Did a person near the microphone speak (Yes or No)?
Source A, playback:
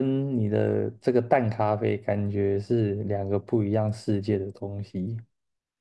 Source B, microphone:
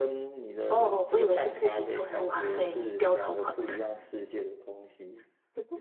Yes